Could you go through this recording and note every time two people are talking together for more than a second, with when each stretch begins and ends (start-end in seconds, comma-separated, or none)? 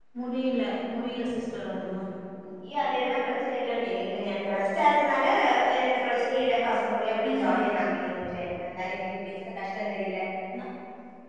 none